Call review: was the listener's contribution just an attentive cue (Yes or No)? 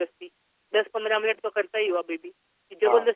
No